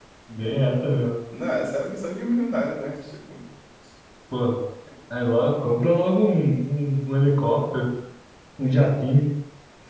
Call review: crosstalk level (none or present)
none